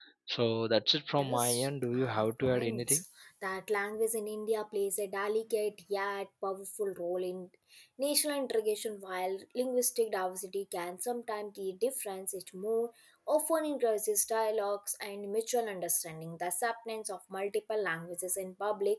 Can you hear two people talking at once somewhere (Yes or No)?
Yes